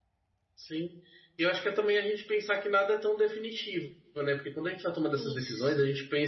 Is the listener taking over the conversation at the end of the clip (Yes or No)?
No